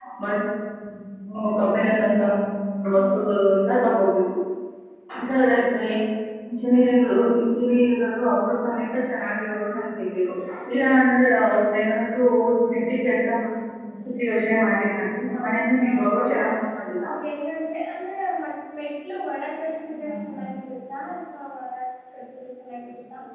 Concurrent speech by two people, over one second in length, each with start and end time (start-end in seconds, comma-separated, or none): 15.3-16.5